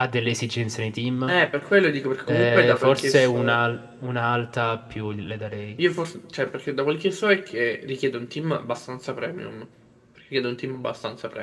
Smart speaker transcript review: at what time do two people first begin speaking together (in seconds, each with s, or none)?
2.3 s